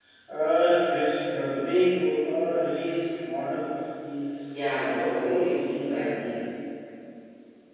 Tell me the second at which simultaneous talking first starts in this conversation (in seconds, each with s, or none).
4.6 s